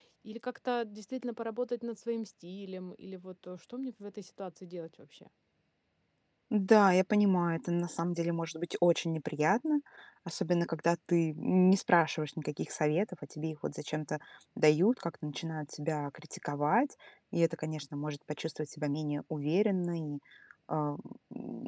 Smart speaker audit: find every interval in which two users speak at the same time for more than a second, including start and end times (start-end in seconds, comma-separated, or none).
none